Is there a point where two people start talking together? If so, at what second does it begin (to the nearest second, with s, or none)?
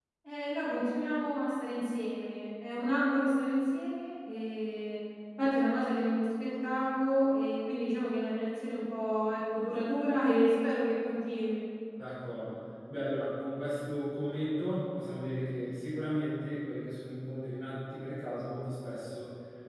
none